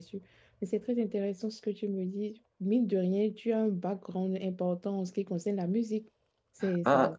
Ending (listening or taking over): taking over